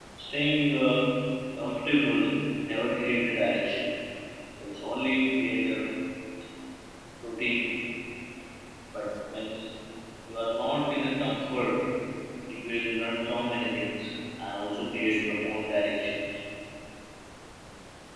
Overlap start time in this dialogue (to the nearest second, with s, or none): none